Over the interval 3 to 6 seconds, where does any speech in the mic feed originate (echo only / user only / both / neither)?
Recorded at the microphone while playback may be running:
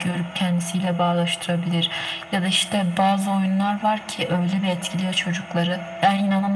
echo only